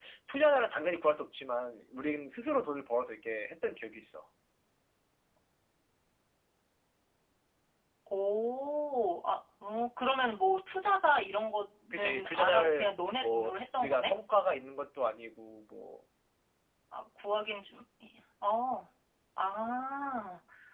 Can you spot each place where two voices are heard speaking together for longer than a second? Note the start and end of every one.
11.9-14.1

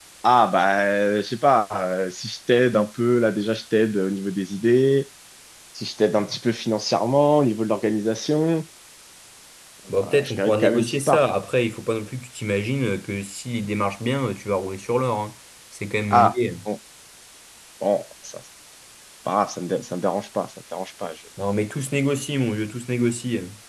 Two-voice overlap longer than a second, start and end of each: 10.0-11.2

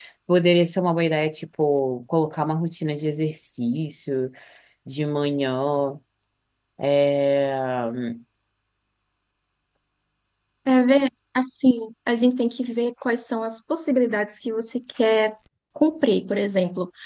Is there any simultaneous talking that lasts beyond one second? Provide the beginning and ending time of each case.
none

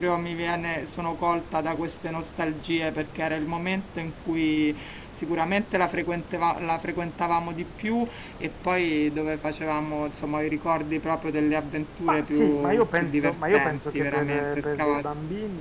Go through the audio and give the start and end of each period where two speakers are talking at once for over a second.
12.1-15.1

